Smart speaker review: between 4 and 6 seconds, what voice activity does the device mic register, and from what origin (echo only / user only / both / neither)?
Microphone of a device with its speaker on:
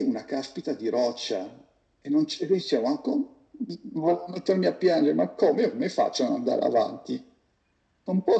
echo only